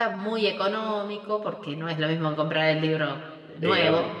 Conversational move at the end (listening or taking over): taking over